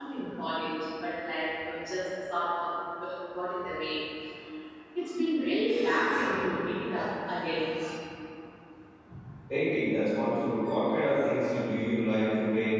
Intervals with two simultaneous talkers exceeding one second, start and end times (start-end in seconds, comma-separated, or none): none